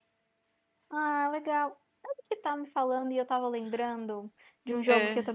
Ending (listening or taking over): listening